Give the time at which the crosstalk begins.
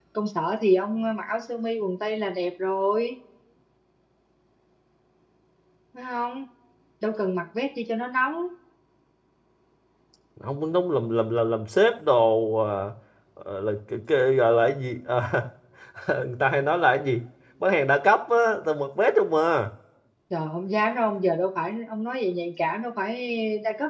none

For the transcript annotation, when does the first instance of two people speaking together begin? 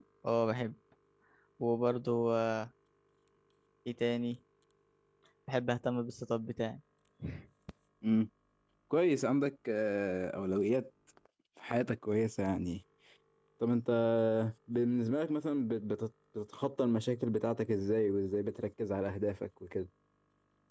none

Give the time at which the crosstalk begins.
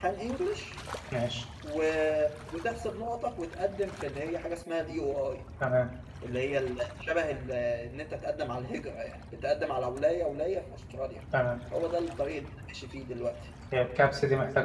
none

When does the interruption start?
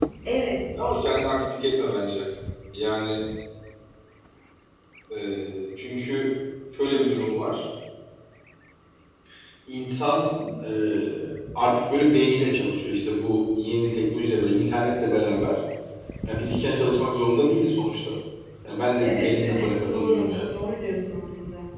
19.0 s

